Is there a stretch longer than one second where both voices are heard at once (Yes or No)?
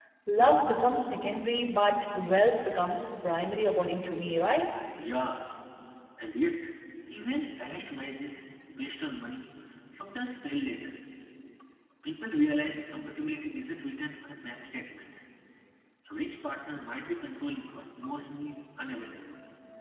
No